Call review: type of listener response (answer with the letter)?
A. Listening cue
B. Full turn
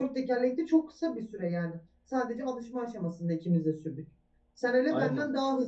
A